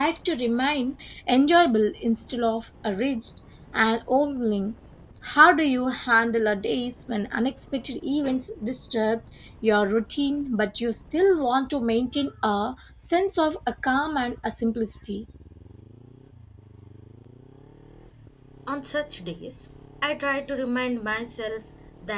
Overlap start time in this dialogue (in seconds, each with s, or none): none